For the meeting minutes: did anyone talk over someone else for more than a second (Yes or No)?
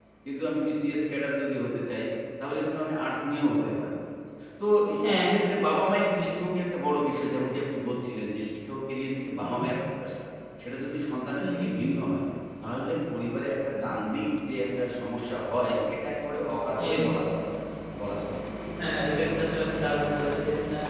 No